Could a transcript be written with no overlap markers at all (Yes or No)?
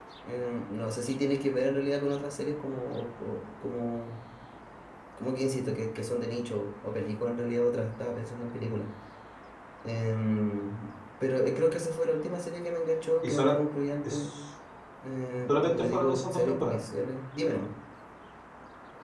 No